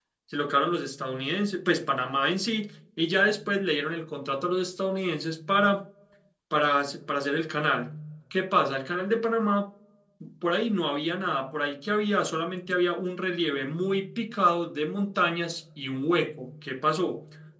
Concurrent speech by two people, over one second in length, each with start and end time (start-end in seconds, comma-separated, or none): none